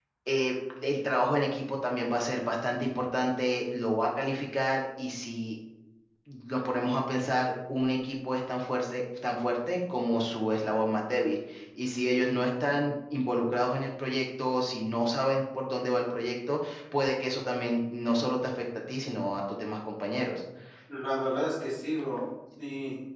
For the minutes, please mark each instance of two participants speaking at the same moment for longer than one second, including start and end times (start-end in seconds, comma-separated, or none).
none